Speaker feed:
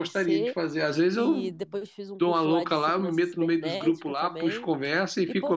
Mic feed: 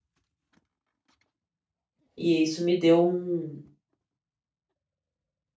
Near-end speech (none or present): present